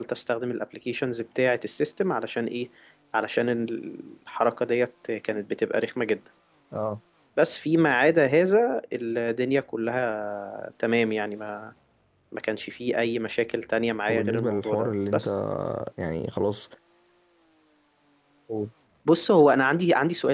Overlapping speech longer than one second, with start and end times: 14.1-15.3

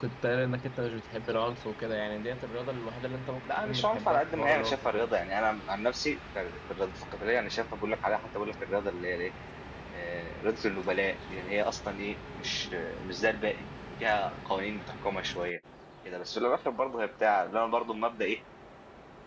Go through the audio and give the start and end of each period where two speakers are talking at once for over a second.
3.4-5.1

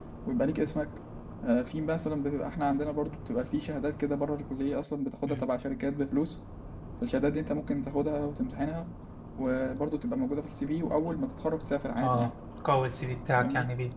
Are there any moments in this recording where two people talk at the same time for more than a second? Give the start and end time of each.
none

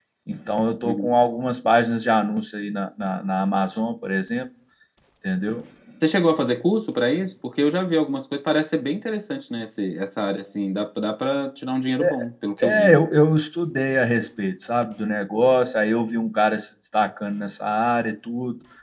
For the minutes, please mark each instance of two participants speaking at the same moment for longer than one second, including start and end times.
none

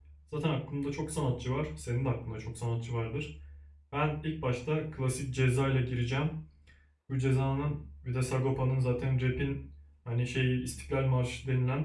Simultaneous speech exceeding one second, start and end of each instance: none

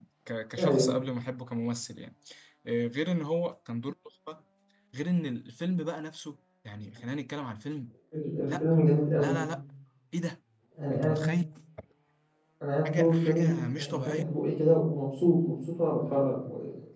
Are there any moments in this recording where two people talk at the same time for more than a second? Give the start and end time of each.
12.9-14.2

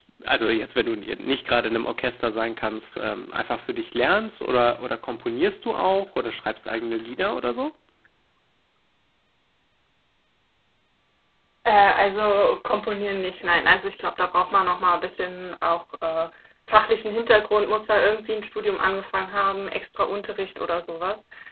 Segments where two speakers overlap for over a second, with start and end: none

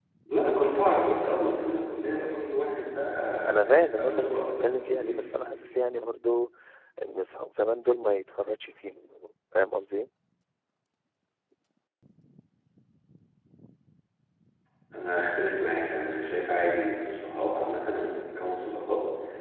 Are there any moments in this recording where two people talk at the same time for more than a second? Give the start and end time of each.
3.7-5.2

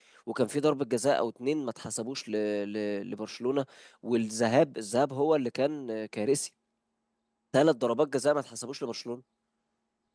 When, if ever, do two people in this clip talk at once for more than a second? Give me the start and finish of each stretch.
none

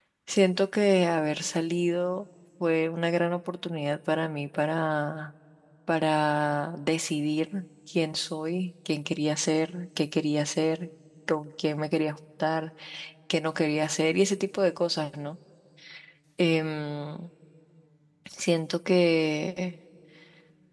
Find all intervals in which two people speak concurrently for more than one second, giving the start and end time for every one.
none

